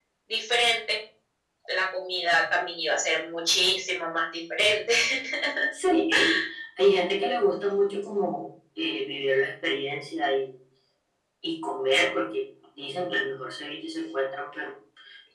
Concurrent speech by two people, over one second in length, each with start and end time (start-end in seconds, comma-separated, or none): none